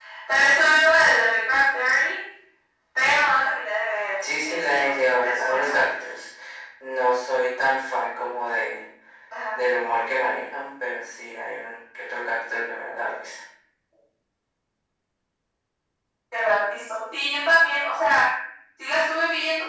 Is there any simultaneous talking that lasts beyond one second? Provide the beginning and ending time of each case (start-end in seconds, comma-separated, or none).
4.5-5.8